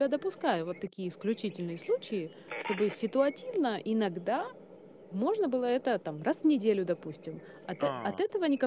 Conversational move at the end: listening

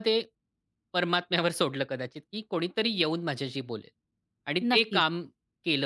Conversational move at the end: listening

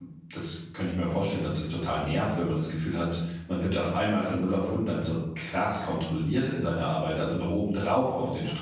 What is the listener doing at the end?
listening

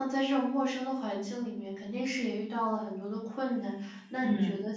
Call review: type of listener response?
listening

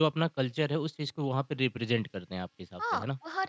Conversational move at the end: taking over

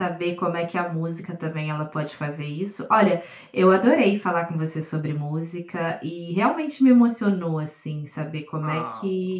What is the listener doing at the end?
listening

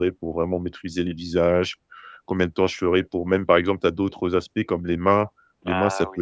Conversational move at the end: listening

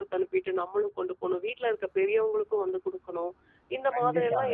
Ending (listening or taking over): taking over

